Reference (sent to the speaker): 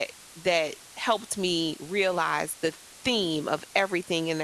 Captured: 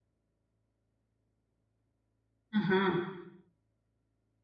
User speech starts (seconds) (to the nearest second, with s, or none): 3 s